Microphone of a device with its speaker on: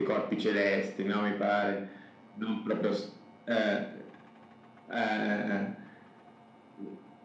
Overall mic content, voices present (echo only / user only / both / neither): echo only